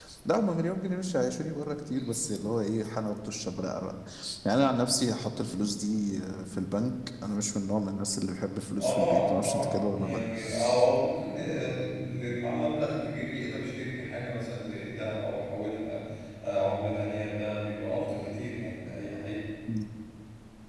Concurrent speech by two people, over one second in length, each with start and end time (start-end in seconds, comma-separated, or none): 8.8-10.2